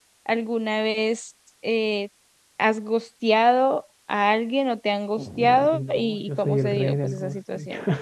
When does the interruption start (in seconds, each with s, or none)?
5.2 s